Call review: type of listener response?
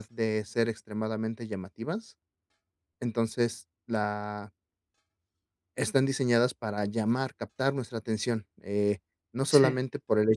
listening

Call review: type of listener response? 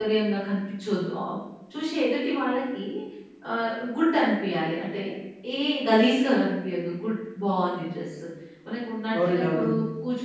listening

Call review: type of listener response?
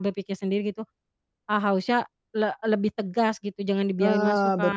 taking over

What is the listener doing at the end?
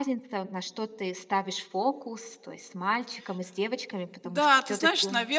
taking over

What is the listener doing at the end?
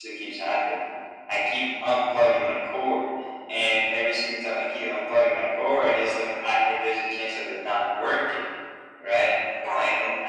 listening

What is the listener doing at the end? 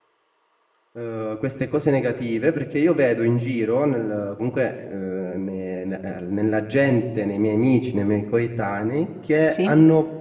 listening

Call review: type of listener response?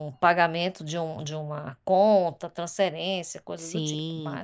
taking over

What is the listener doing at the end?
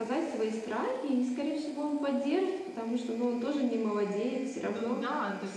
taking over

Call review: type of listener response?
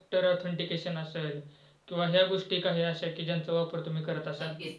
taking over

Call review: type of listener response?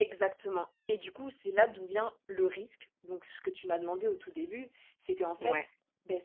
listening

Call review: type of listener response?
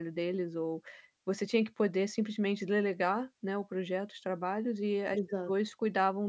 listening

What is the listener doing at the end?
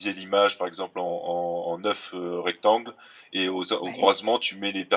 listening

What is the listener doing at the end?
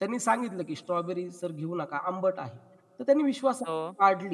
listening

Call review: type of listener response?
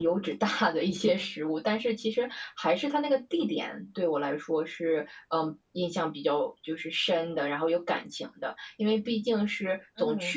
listening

